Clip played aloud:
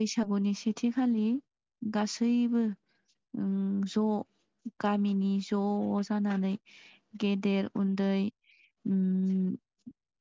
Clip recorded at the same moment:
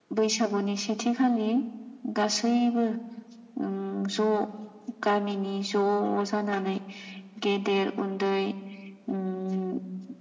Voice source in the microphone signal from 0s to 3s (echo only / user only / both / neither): echo only